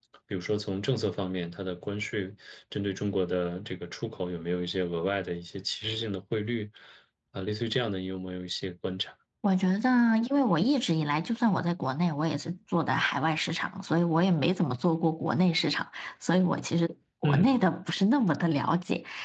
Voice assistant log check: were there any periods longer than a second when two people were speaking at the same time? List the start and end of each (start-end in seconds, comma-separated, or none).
none